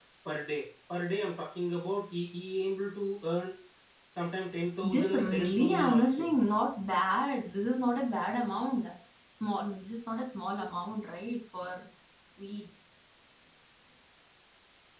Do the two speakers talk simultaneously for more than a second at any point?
Yes, from 4.8 s

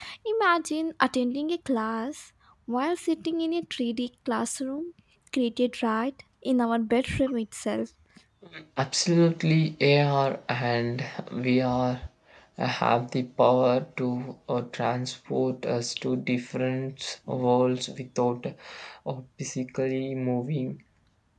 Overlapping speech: No

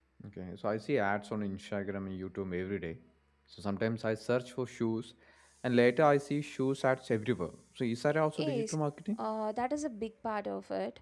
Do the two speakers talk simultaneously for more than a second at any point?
No

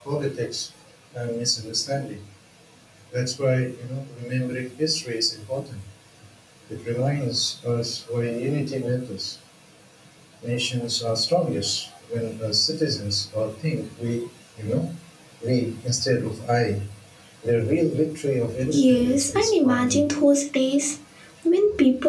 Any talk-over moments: Yes, from 18.5 s

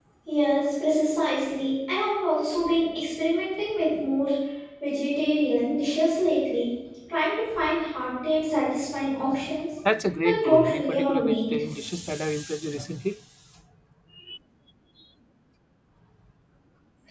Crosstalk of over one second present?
Yes, from 10.2 s

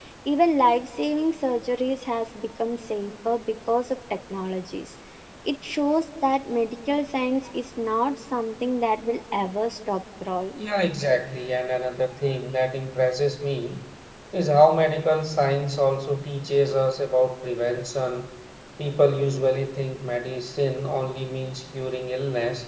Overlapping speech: No

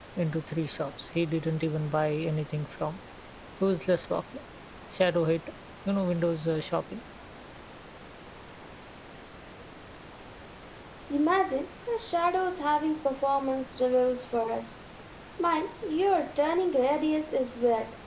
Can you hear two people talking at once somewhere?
No

